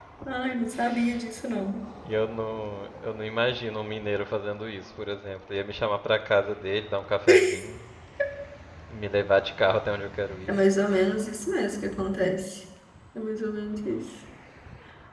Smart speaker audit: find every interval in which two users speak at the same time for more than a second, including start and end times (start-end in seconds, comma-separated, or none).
none